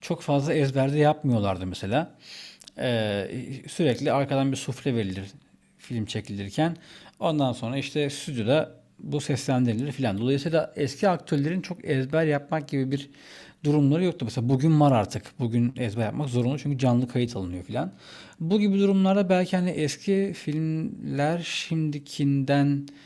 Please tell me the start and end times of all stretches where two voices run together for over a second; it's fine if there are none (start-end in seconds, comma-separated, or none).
none